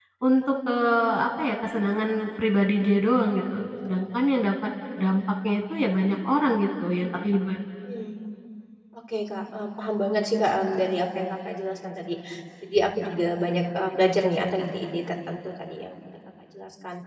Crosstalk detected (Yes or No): No